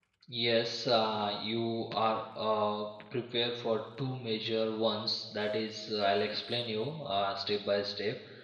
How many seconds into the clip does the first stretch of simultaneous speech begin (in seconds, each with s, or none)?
none